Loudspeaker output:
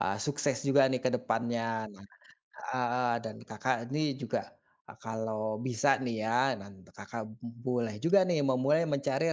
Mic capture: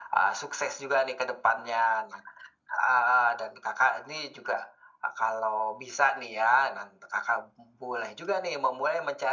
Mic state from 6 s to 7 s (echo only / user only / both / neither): echo only